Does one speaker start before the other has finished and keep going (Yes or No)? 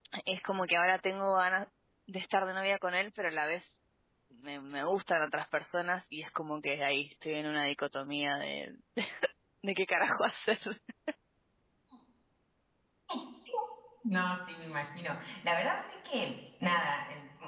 No